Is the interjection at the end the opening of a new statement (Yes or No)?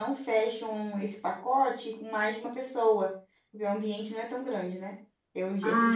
Yes